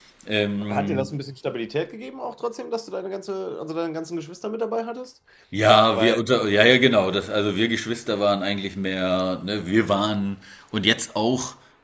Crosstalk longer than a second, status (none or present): none